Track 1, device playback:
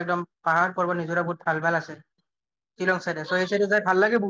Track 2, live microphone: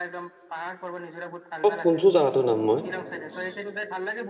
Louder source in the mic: user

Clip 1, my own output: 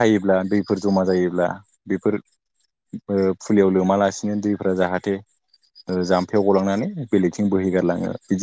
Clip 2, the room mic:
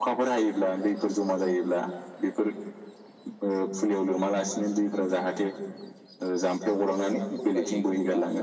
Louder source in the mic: echo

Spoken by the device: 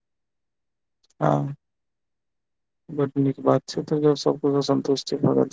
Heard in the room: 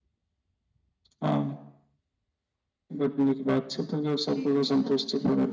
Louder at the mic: echo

